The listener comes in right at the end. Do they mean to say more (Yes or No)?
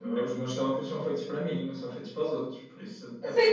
Yes